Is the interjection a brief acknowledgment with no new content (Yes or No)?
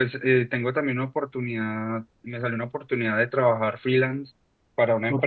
Yes